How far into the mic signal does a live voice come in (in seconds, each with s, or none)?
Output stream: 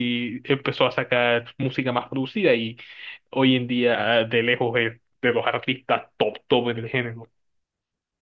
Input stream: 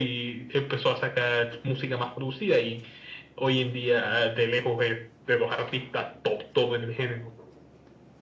none